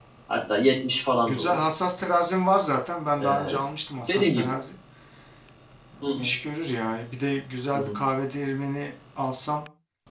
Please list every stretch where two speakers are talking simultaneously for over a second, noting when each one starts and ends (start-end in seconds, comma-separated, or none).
none